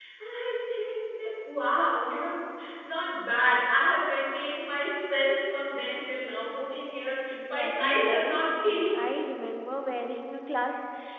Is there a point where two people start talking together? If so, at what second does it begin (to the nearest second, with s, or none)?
7 s